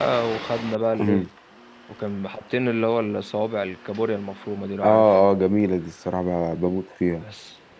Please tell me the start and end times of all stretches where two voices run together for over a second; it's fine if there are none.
none

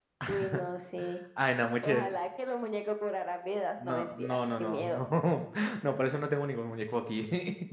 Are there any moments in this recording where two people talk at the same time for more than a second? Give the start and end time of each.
3.8-5.0

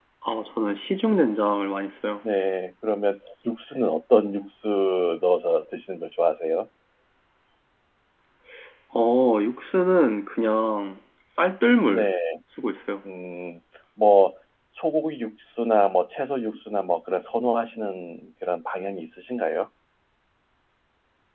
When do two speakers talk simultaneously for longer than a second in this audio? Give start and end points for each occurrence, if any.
none

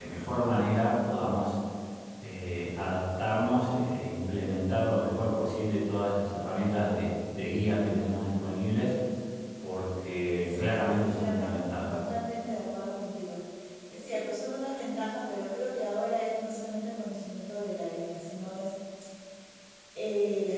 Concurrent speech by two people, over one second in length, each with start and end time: 10.5-12.0

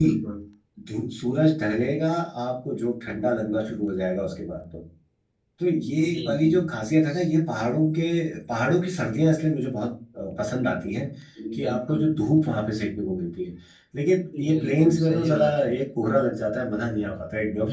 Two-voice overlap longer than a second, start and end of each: 14.4-15.8

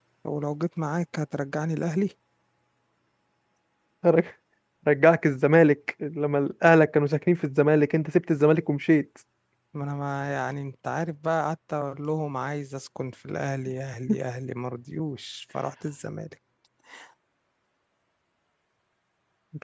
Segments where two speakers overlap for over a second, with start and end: none

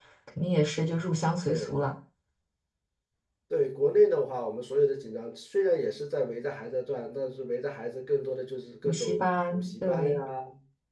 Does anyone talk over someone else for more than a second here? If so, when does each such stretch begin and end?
8.8-10.2

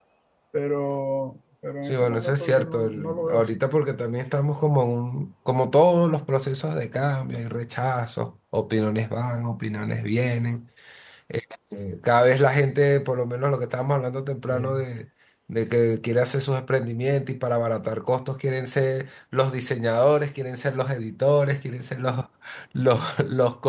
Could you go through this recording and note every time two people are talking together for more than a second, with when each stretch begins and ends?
1.9-3.5

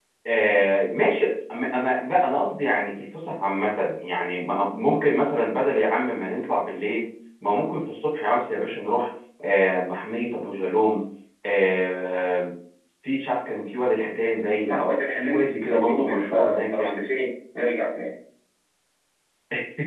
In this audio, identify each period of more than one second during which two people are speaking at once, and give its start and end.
14.5-17.0

